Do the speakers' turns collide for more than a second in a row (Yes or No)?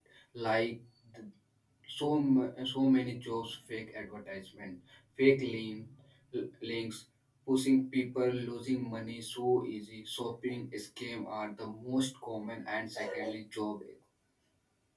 No